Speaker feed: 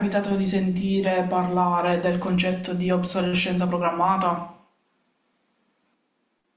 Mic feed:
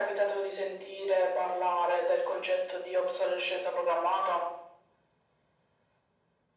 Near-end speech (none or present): none